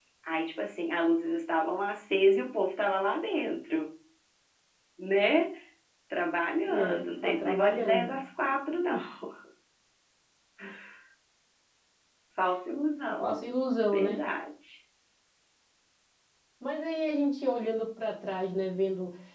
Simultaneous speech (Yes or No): Yes